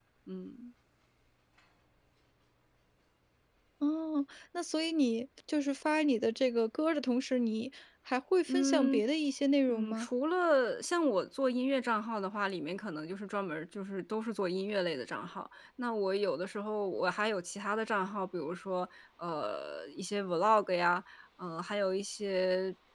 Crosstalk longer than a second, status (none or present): none